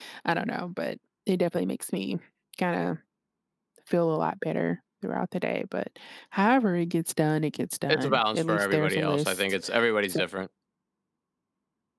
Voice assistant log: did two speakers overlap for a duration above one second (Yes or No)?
Yes